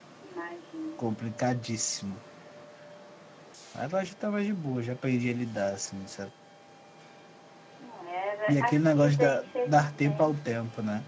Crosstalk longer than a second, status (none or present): present